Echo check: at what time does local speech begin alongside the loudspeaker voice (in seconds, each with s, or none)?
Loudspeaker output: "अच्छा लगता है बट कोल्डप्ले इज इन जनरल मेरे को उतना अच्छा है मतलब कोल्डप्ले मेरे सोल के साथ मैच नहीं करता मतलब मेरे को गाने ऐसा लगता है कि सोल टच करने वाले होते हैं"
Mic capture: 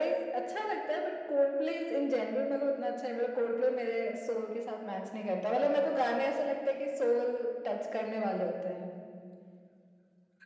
none